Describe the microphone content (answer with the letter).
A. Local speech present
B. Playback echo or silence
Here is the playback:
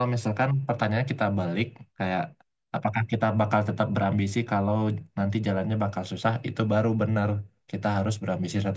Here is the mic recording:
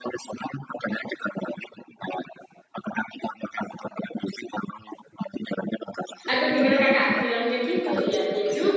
A